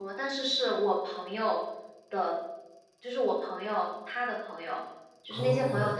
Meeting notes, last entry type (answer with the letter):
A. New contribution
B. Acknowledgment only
B